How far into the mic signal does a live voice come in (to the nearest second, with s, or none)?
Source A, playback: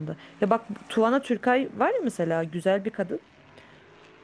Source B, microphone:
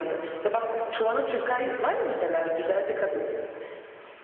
none